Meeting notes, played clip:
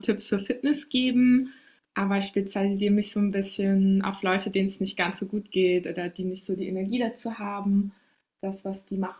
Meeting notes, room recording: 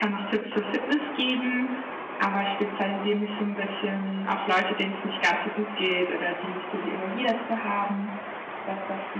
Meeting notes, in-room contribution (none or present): none